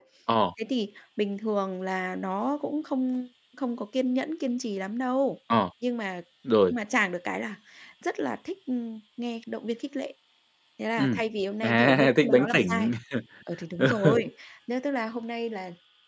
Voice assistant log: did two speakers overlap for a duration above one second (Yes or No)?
Yes